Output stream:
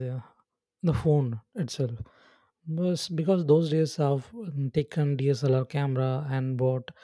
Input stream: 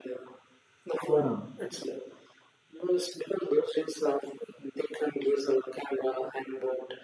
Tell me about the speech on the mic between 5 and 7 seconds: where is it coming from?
echo only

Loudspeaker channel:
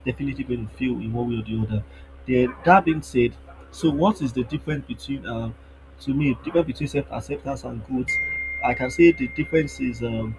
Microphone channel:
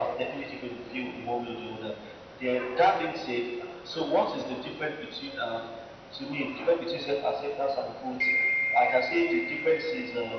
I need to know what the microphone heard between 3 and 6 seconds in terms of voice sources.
echo only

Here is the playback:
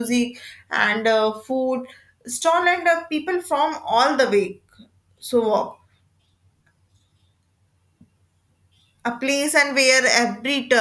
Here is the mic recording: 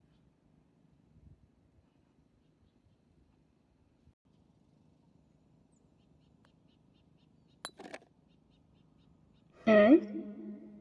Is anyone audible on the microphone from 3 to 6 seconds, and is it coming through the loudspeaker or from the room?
neither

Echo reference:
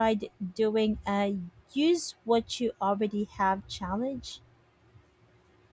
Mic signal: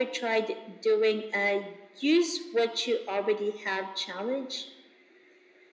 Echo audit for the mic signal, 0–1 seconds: echo only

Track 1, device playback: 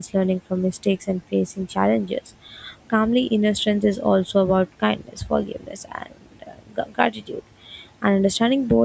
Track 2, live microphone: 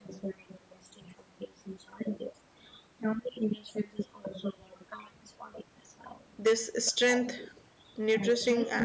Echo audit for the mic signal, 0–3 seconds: echo only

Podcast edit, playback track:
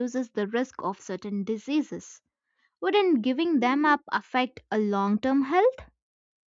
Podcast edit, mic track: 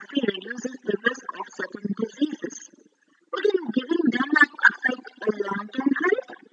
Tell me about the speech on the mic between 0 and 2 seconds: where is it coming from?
echo only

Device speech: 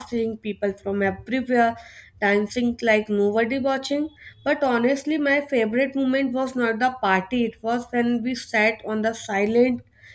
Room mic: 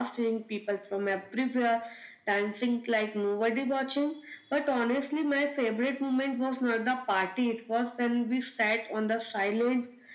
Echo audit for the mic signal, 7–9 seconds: echo only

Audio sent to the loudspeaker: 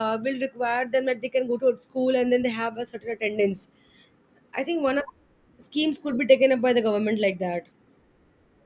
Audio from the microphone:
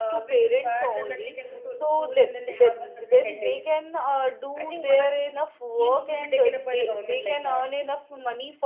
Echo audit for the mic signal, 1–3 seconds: both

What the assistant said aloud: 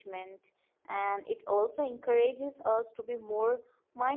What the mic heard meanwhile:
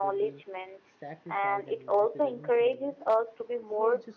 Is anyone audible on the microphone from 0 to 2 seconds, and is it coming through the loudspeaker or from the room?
both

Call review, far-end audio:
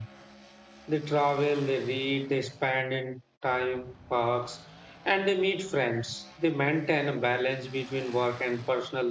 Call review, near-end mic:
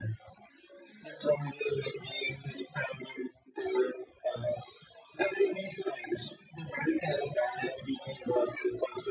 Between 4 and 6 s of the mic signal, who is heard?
echo only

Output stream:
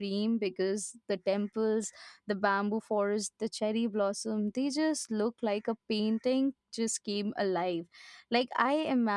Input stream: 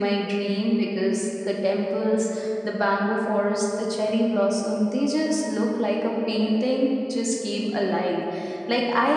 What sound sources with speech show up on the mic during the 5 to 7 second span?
echo only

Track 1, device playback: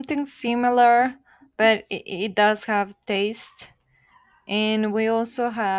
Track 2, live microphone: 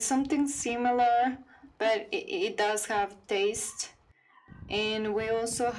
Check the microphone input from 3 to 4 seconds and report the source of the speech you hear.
echo only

